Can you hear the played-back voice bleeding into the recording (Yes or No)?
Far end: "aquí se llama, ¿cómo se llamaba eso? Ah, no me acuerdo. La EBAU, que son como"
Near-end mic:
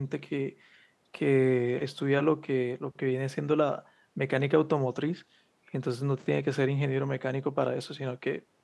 No